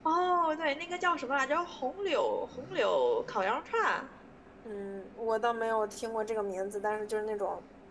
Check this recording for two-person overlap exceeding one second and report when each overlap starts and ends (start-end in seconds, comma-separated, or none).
none